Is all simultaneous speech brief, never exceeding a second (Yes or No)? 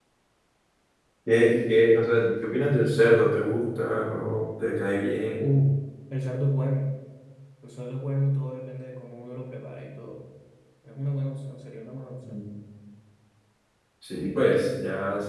Yes